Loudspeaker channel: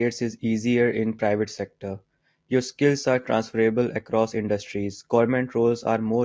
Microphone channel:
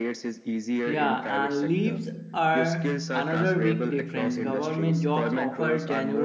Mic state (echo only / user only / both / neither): both